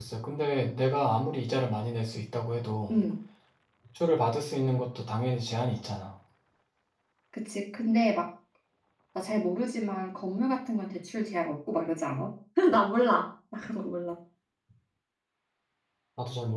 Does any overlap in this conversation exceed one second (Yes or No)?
No